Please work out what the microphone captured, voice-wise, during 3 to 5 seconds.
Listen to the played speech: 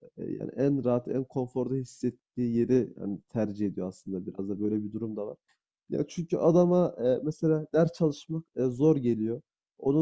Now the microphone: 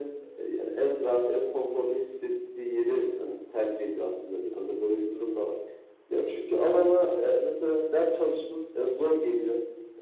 echo only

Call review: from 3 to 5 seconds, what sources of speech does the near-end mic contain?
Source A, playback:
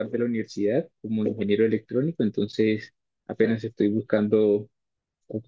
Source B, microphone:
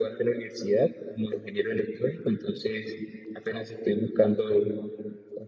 echo only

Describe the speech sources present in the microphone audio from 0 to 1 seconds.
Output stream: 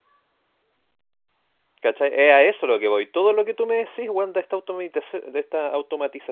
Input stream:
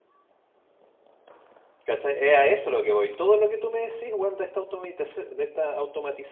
neither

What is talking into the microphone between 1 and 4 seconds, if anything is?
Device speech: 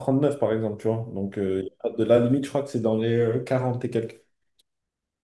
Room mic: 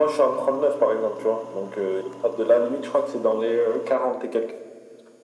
echo only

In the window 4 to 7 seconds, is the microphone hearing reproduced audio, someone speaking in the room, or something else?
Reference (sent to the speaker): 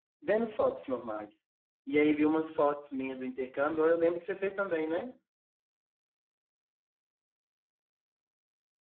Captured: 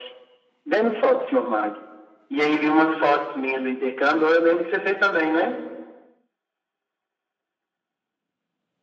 echo only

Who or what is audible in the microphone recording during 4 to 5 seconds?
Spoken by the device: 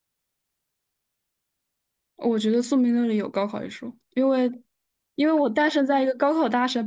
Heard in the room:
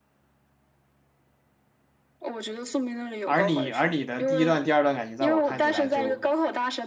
both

